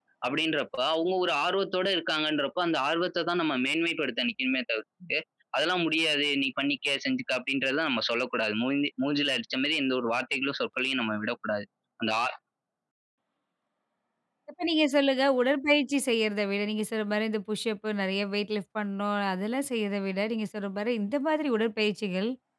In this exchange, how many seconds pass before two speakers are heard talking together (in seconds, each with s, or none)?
none